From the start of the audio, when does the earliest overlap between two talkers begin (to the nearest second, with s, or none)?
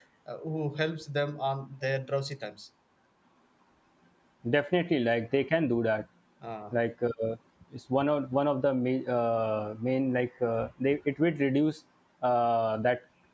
none